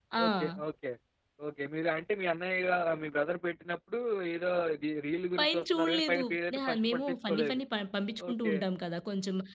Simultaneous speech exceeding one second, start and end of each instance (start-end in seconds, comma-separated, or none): 5.4-7.6